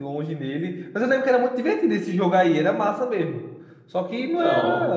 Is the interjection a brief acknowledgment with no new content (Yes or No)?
Yes